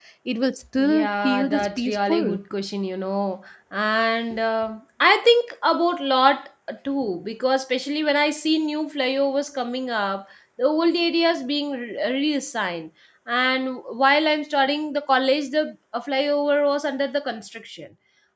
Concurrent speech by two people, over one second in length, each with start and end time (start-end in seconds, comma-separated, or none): 0.8-2.3